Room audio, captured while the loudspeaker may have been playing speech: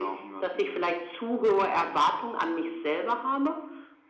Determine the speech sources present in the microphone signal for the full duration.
echo only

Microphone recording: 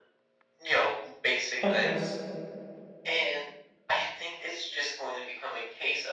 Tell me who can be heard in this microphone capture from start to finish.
both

